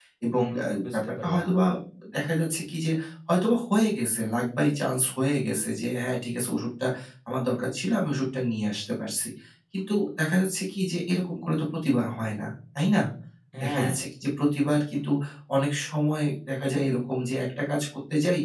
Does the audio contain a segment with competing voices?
Yes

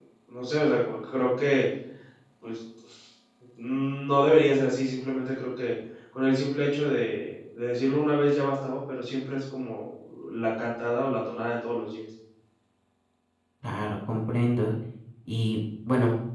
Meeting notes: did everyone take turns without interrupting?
Yes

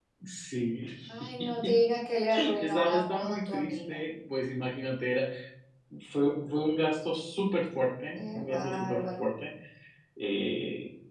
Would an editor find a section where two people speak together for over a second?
Yes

